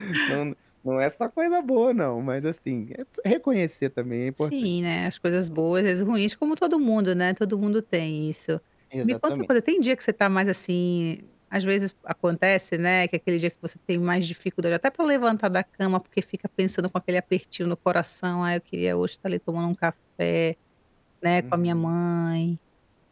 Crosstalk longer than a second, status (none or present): none